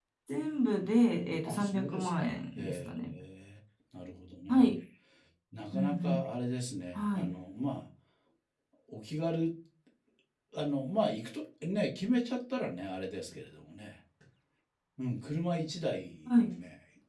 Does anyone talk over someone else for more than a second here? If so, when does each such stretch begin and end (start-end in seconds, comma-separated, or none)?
1.4-3.2